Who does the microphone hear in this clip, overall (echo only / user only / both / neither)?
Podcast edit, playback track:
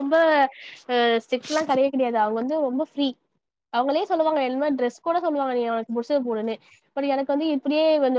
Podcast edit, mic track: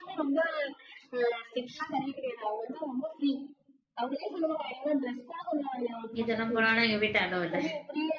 both